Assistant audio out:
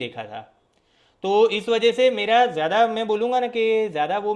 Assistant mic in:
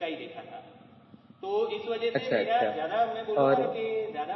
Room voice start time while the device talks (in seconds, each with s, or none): 2.1 s